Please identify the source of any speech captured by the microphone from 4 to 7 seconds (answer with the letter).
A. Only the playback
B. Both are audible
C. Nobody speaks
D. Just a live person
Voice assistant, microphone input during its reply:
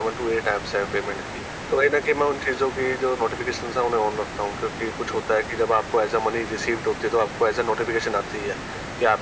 A